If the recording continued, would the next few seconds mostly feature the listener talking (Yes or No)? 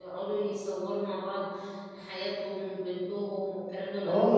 Yes